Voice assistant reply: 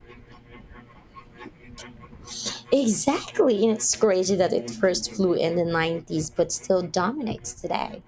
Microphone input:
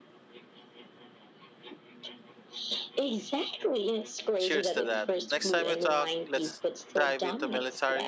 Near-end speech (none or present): present